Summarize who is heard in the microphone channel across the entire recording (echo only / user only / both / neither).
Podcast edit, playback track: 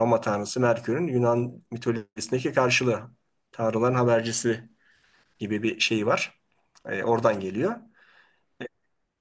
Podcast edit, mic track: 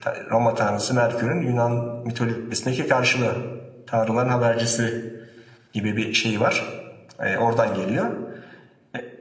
echo only